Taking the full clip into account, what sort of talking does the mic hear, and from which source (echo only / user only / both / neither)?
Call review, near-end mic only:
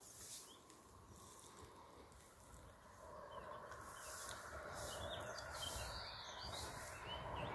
neither